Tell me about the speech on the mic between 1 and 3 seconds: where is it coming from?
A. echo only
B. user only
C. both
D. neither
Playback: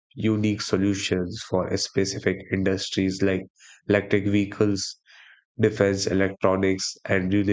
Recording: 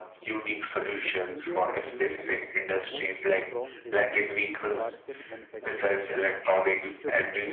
C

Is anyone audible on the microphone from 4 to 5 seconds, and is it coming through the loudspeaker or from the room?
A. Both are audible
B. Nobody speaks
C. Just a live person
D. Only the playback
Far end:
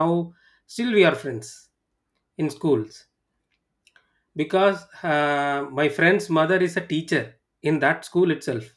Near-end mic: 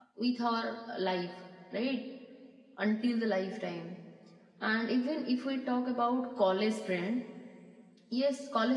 C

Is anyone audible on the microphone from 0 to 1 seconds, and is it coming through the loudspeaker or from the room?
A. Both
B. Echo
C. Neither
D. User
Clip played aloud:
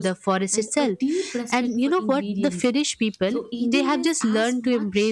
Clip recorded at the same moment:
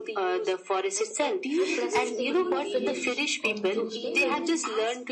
B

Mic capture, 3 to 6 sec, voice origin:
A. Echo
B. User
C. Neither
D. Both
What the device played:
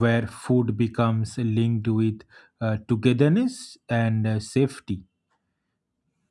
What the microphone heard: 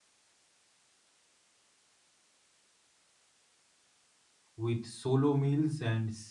B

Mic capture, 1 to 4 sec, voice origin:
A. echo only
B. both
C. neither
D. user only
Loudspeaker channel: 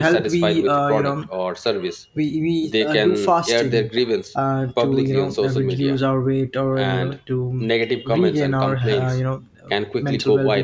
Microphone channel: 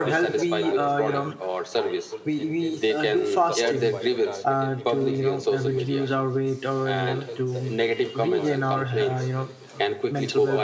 B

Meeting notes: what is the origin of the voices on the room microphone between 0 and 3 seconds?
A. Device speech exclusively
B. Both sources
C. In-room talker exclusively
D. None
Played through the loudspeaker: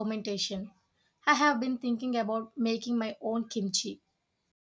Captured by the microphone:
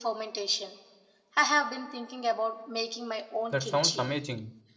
A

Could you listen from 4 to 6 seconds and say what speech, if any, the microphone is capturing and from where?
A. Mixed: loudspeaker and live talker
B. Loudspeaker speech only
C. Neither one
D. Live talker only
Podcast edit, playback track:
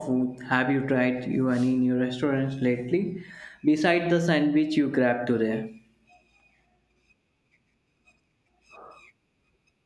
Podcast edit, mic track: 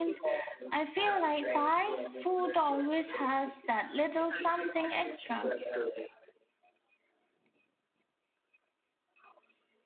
A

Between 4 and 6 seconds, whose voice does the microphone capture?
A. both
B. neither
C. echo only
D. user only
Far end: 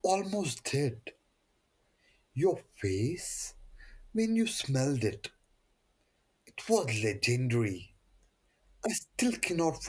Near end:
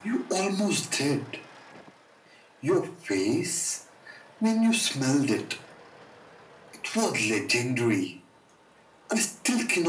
C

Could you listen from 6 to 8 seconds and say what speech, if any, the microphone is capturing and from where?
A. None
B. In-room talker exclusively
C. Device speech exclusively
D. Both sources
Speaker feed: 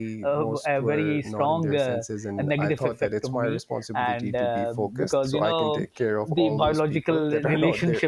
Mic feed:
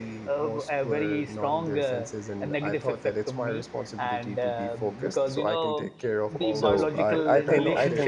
D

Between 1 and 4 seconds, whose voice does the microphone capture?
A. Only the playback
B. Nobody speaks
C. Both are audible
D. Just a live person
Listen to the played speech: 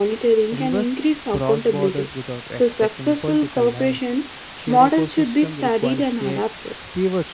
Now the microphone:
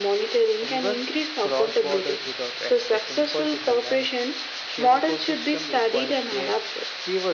A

